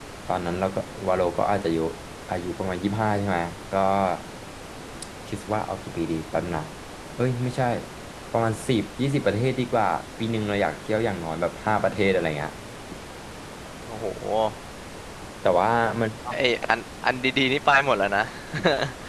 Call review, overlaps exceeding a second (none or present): none